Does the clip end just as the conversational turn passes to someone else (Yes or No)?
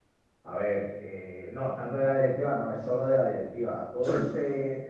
No